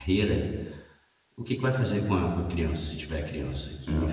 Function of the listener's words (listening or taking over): listening